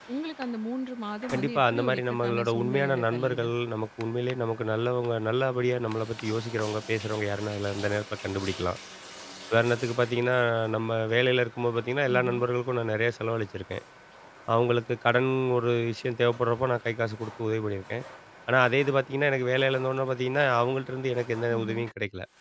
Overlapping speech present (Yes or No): Yes